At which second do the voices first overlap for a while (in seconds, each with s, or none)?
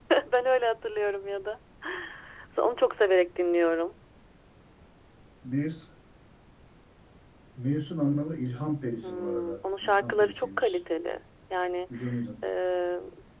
9.0 s